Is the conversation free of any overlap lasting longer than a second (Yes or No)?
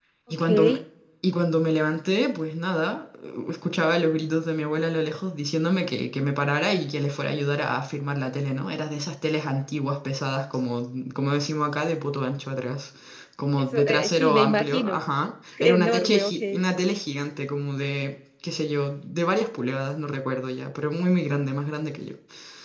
No